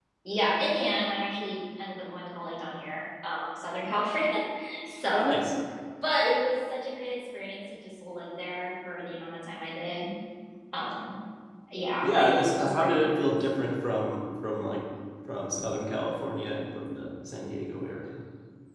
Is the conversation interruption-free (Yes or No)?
No